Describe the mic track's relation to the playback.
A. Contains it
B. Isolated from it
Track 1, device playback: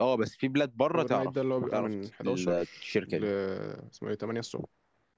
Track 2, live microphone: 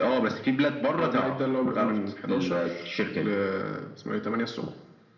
A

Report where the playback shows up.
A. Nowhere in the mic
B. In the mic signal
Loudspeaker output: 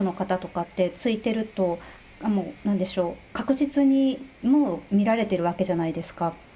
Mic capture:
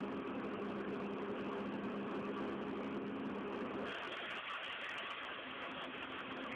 A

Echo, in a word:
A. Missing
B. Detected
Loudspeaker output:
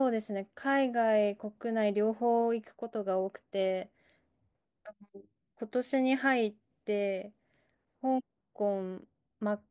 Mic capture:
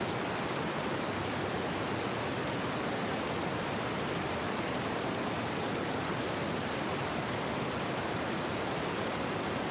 A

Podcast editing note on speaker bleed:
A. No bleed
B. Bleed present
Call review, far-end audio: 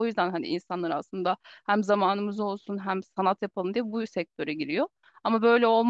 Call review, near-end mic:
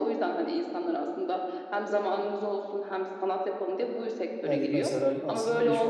B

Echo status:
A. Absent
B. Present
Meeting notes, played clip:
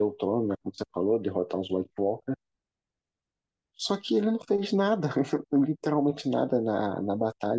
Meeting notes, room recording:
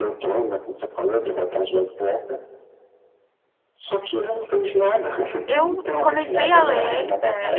B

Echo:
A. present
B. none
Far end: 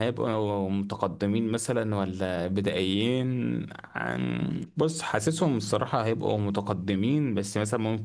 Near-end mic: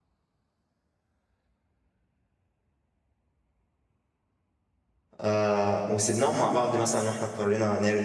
B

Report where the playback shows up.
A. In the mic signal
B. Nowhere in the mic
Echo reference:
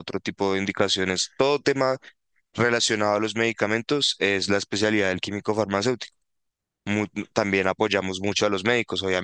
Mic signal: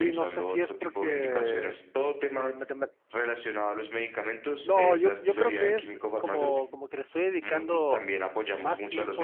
A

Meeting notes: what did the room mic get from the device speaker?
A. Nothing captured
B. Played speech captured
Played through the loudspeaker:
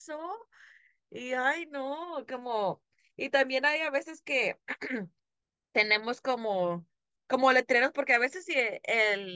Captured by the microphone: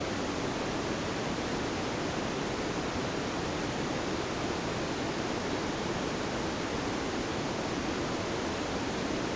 A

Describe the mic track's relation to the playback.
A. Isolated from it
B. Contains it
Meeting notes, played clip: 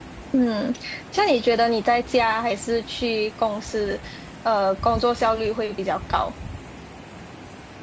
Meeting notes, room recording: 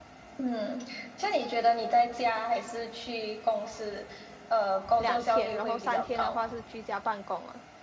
B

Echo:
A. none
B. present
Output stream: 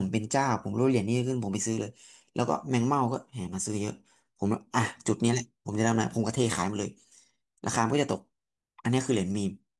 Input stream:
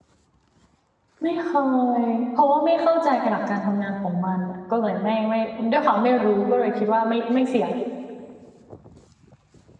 A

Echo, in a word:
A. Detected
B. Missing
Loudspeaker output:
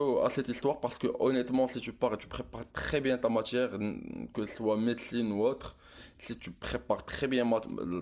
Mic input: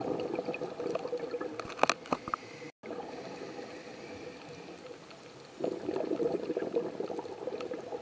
B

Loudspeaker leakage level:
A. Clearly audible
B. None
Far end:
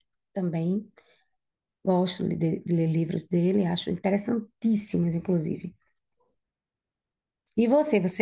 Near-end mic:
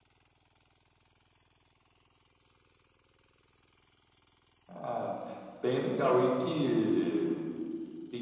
B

